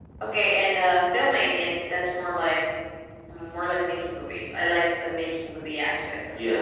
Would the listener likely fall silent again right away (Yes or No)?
No